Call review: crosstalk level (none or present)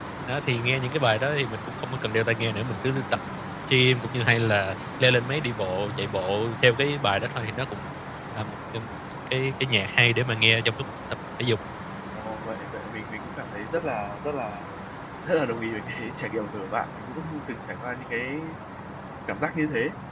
none